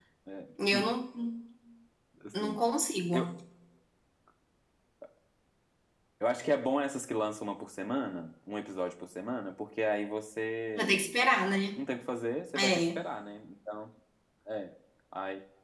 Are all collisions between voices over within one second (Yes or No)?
Yes